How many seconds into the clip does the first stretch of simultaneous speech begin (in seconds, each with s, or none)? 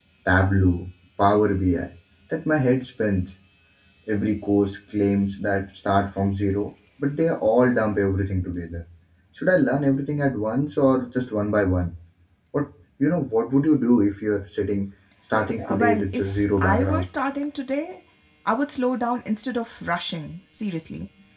15.7 s